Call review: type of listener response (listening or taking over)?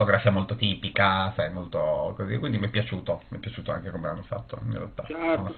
taking over